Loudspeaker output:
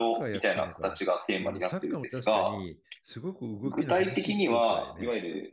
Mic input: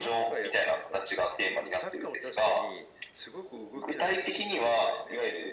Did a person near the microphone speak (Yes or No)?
No